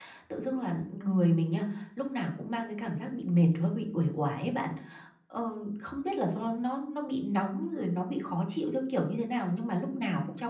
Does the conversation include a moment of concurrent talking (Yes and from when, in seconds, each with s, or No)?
No